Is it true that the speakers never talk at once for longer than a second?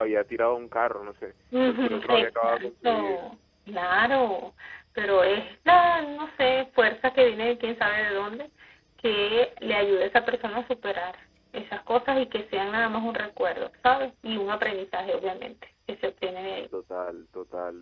No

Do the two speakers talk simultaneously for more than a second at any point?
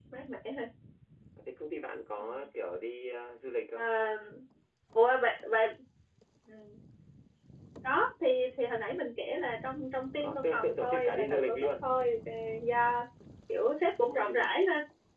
Yes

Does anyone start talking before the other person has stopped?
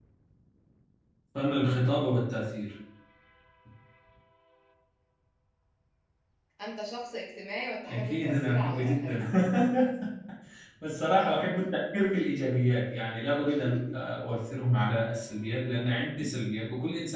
Yes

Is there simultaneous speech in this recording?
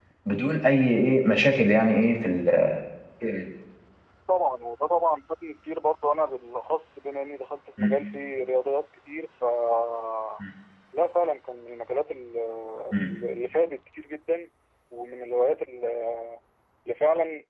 No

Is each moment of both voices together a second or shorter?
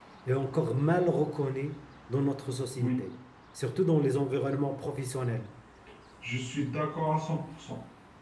Yes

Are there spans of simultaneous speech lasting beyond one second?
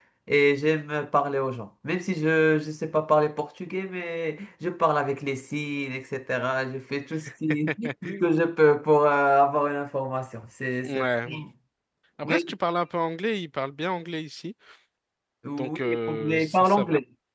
Yes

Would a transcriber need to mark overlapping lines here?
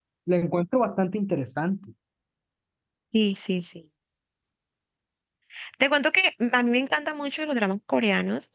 No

